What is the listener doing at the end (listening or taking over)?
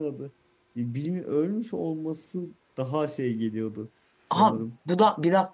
taking over